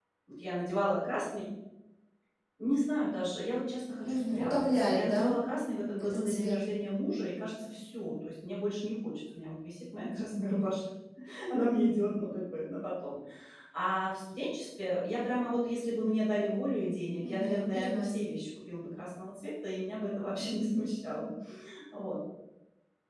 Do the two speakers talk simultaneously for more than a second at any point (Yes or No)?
Yes